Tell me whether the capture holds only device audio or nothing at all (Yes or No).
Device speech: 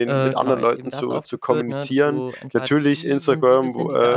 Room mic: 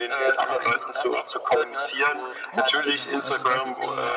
No